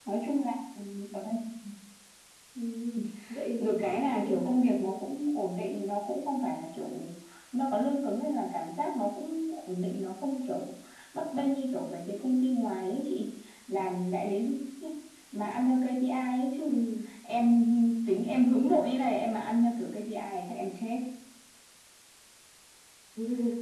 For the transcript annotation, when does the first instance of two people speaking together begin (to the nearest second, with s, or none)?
4 s